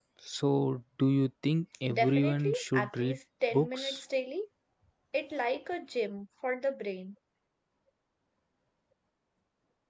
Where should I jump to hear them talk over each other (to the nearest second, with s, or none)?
2 s